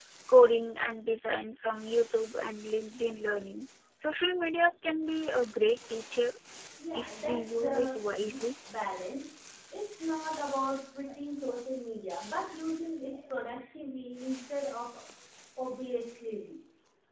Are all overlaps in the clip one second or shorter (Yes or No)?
No